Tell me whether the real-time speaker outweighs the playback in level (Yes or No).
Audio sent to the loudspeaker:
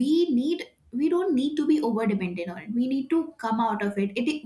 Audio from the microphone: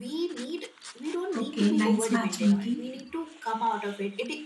Yes